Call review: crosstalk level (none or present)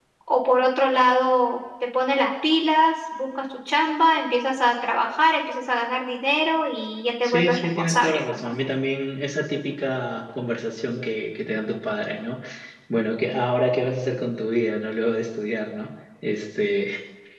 present